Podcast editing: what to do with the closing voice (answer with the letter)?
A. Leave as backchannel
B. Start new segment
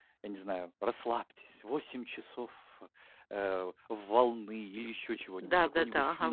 B